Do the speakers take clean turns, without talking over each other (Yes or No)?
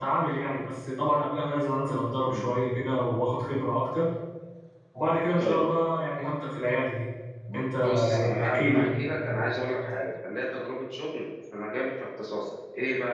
No